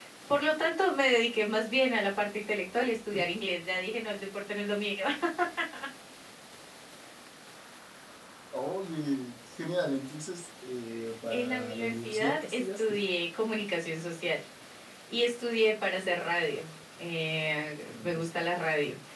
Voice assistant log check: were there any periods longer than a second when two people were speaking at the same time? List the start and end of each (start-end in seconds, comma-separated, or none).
11.3-13.0